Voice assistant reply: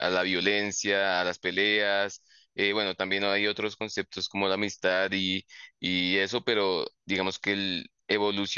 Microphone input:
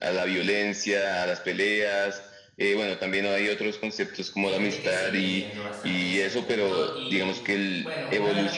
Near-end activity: present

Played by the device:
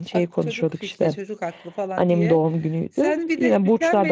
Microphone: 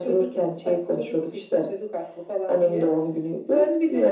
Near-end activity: none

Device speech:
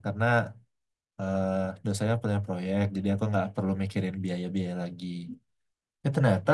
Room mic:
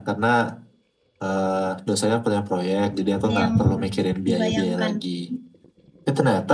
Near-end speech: present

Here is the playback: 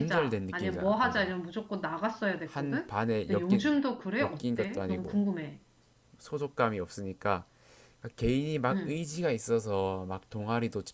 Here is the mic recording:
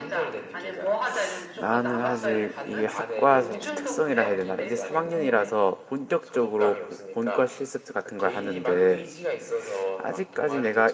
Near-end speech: present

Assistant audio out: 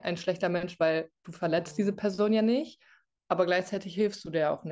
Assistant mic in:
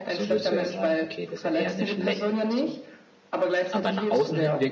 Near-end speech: present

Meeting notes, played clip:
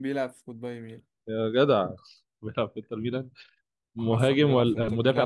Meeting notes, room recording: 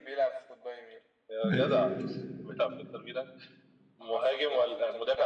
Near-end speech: present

